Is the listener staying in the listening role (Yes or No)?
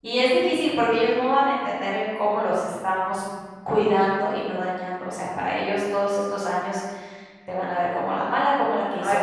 Yes